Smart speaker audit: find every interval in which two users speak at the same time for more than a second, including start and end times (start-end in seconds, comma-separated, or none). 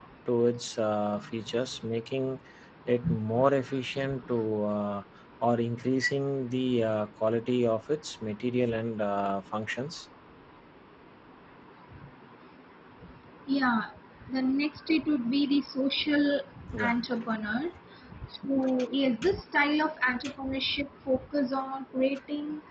none